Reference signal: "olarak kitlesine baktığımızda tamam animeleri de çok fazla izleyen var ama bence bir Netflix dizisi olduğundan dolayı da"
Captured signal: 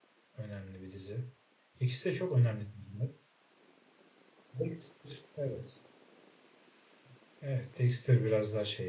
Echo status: none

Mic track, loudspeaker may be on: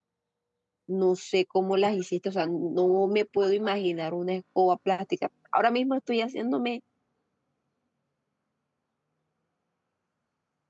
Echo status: none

